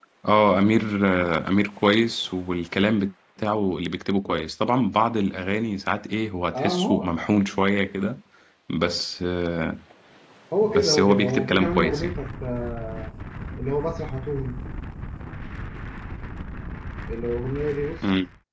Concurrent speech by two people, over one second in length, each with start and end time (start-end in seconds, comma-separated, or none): 10.6-12.1